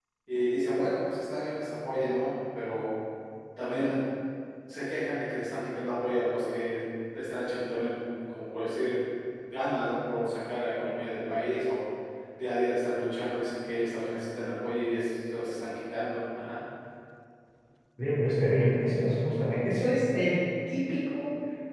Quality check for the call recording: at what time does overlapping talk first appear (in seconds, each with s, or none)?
none